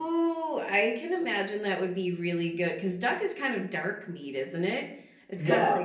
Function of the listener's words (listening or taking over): listening